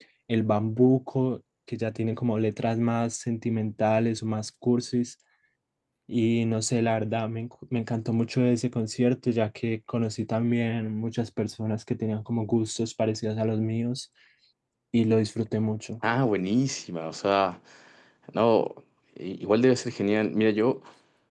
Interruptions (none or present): none